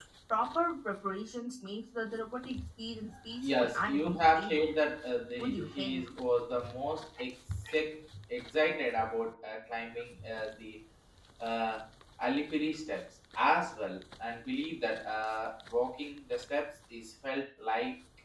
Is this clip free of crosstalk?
No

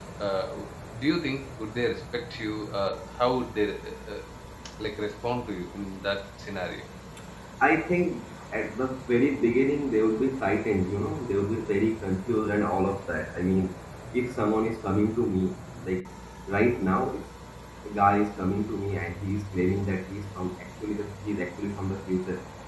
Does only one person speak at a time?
Yes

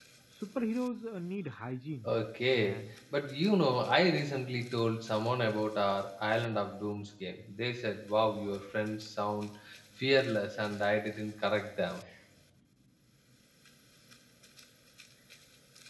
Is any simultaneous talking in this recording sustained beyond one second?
No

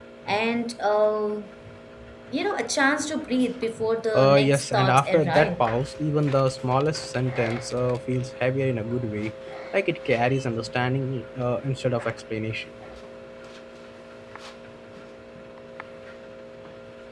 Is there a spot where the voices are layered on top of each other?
Yes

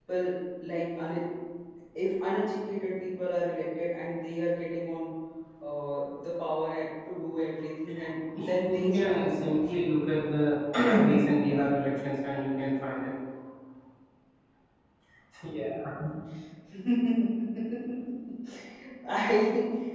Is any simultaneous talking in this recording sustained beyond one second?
Yes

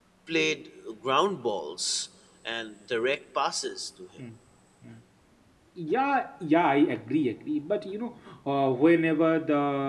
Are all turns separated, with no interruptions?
Yes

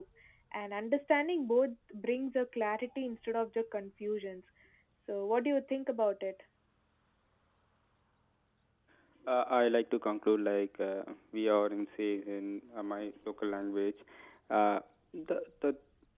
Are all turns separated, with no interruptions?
Yes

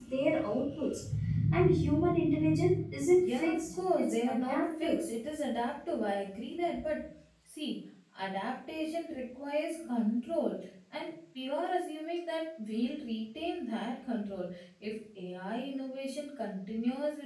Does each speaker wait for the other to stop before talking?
No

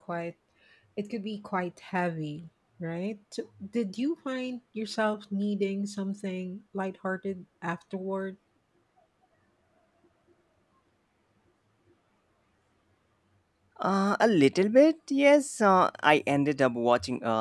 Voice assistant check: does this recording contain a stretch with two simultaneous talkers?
No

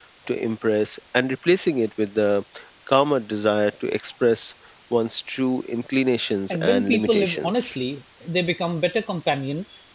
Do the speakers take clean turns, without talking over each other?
No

